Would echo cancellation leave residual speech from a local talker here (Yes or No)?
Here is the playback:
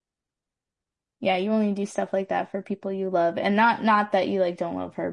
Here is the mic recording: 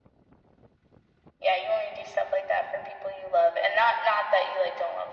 No